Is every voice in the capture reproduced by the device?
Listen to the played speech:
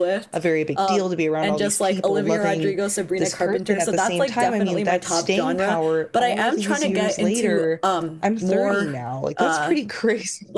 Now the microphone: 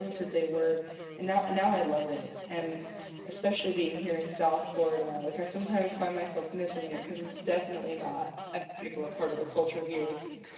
No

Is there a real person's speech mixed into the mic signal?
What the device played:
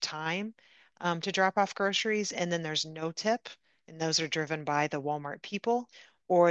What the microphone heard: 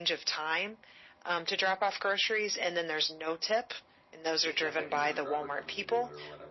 Yes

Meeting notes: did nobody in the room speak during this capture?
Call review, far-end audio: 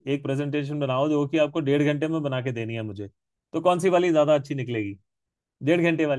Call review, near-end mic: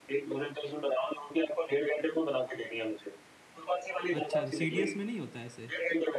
No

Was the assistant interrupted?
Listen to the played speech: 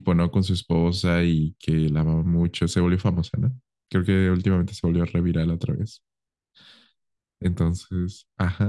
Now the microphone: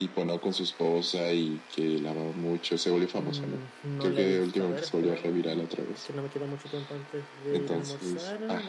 Yes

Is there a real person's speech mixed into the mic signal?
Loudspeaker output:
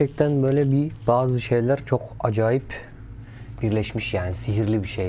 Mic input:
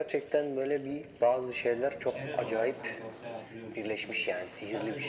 Yes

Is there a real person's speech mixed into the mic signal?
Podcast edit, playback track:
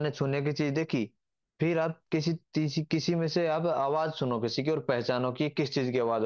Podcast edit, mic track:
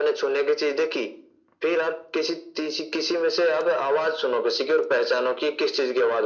No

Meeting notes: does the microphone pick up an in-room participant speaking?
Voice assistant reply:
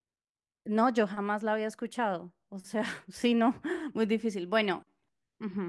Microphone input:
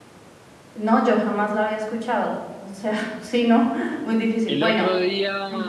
Yes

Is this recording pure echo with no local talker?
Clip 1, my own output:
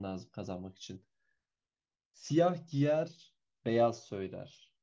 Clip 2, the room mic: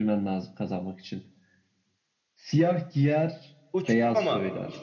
No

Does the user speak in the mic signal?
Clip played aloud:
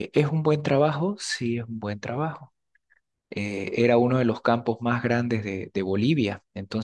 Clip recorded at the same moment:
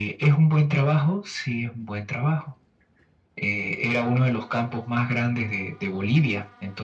No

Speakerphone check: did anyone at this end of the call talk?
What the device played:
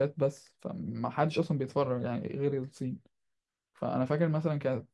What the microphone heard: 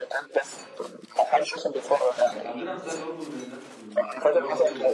Yes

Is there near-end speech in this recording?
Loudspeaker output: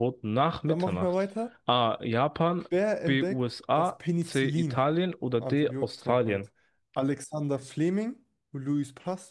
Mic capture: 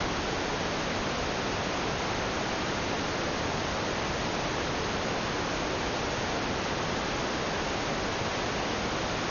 No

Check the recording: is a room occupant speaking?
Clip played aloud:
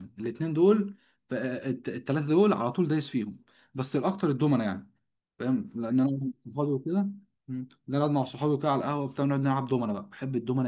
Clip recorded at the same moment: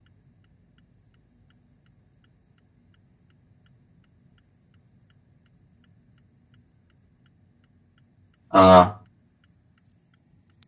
Yes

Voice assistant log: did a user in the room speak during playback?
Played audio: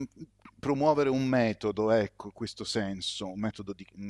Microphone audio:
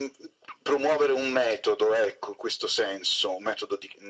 No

